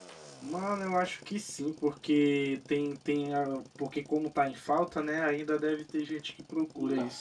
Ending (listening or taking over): taking over